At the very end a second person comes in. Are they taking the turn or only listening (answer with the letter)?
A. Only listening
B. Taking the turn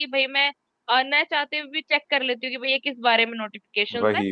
A